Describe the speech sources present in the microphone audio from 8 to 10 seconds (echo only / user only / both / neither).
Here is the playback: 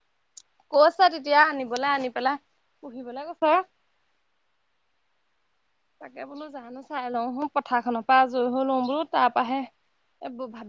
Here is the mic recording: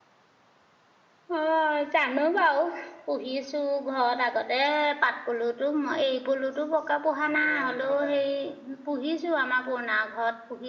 user only